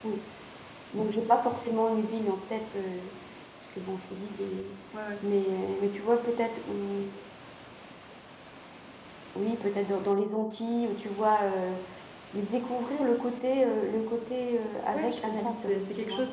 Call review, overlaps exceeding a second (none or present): present